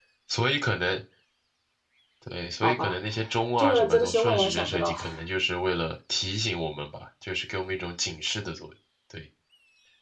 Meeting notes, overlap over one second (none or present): present